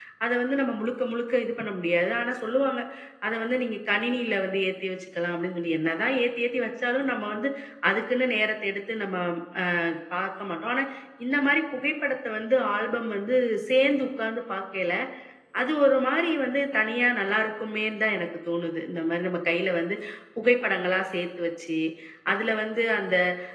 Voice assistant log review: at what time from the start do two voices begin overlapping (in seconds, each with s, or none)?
none